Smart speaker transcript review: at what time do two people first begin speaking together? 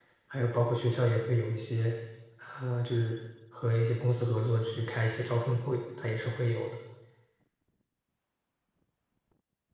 none

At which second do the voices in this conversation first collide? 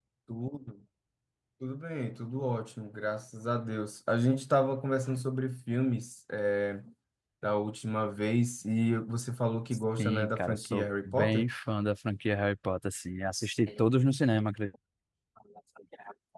10.0 s

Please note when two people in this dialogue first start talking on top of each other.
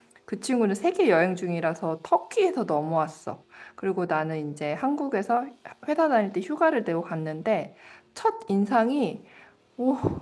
none

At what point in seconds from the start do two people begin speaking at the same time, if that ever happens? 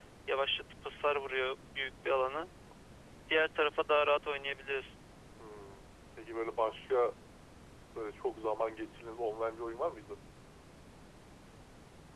none

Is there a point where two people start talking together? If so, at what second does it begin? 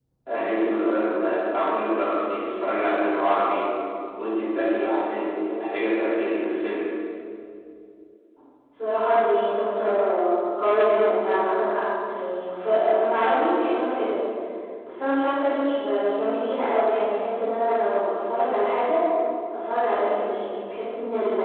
none

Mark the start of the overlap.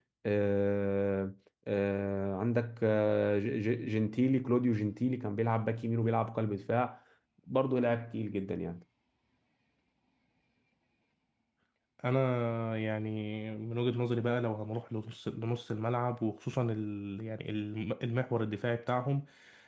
none

